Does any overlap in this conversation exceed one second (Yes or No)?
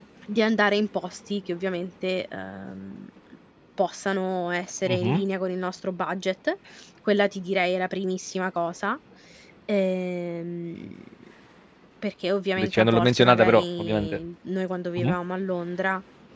Yes